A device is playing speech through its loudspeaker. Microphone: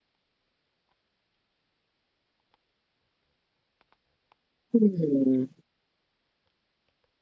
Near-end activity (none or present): present